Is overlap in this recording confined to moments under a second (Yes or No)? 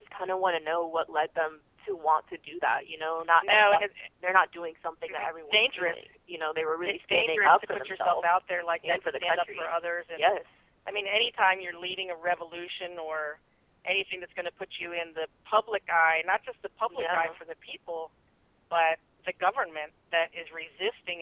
No